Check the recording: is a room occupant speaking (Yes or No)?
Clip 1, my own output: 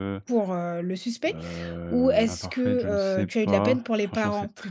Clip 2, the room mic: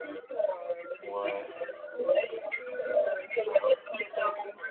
Yes